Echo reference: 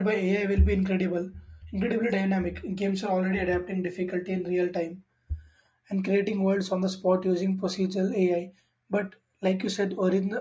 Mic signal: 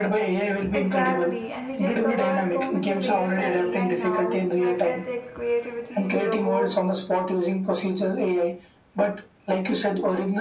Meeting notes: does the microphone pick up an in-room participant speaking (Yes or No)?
Yes